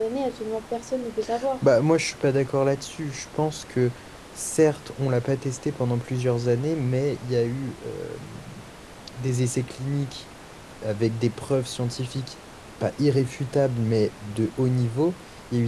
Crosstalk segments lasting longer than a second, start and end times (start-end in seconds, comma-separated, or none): none